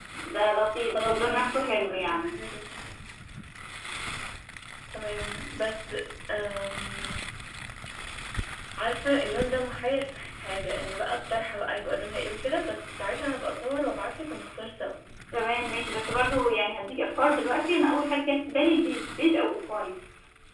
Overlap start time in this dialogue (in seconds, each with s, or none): 0.8 s